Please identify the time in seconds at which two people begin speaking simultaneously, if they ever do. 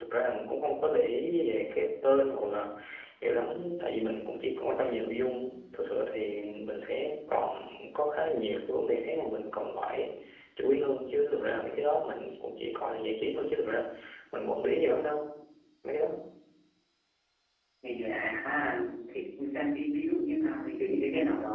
none

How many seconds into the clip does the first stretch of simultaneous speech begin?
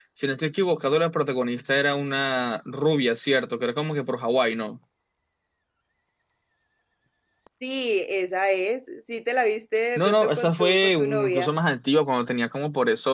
10.0 s

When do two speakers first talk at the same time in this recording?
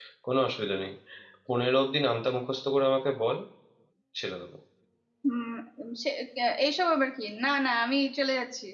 none

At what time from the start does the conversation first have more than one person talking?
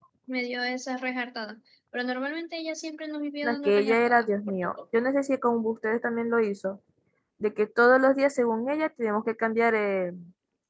3.4 s

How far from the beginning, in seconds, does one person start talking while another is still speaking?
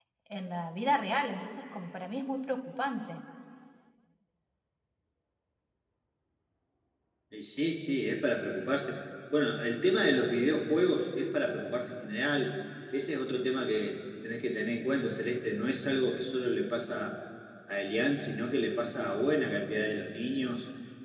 none

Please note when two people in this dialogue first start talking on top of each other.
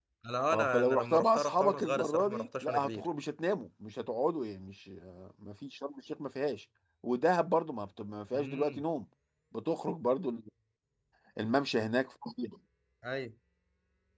0.5 s

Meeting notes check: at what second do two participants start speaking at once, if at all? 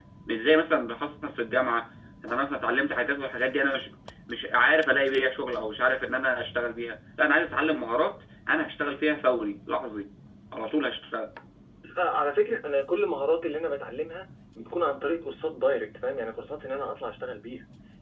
none

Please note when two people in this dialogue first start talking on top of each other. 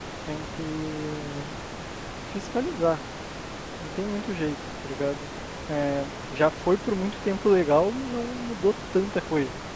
none

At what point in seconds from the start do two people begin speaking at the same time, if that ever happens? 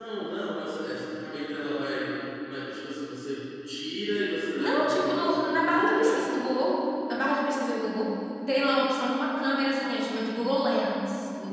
4.6 s

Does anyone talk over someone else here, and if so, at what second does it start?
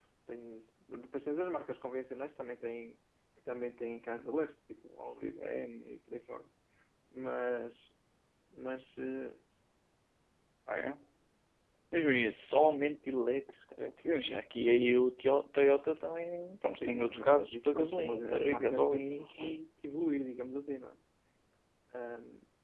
16.7 s

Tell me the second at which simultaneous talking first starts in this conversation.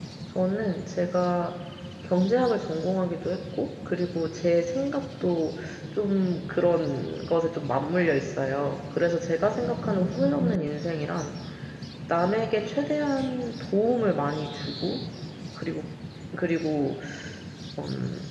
none

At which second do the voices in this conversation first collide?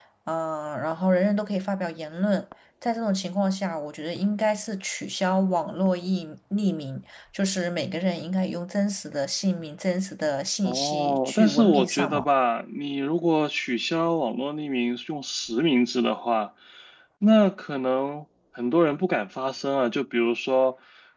10.6 s

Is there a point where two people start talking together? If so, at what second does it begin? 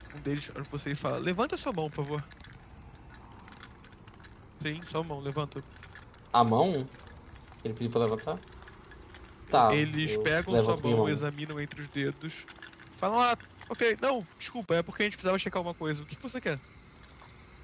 9.5 s

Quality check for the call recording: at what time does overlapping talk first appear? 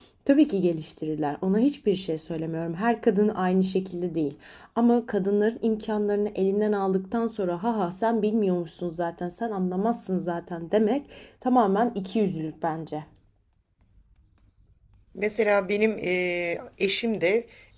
none

